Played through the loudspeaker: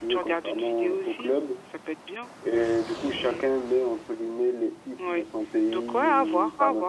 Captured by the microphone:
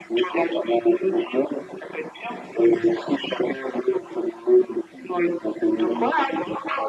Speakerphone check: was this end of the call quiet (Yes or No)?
Yes